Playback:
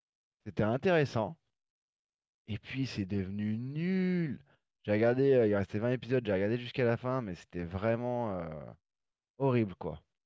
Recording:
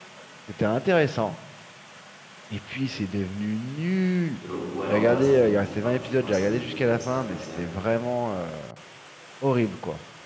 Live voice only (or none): Euh, ouais, en vrai, ça me dérange pas, tu vois, ça me fait penser à Berserk.